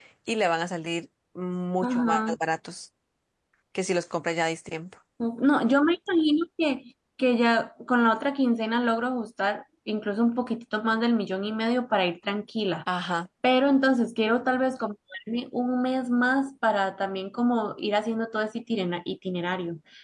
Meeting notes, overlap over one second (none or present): none